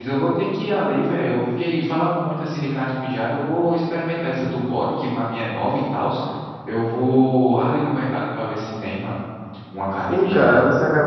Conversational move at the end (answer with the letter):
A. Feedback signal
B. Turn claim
B